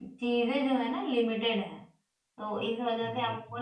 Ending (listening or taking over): listening